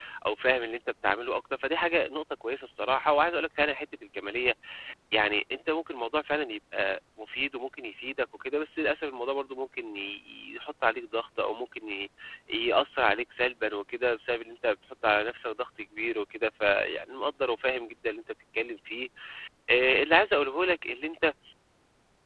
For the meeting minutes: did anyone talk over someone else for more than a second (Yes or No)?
No